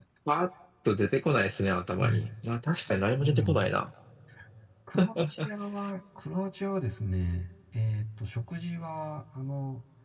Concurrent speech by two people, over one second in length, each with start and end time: none

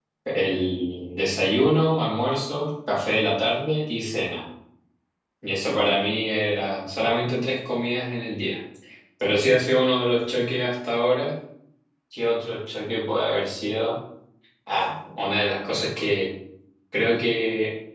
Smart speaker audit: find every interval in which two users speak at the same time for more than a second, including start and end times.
none

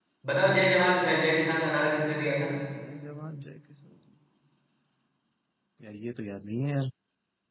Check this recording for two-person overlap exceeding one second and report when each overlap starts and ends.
none

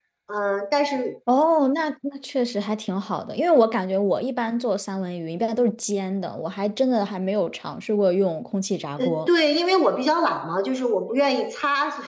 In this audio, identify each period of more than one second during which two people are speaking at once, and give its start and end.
none

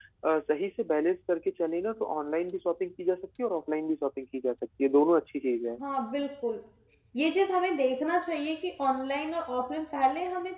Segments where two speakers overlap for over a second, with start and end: none

